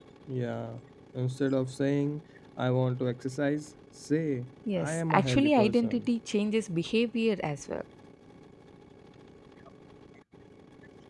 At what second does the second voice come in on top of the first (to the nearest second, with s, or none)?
5 s